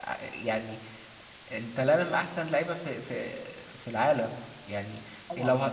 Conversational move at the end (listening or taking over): listening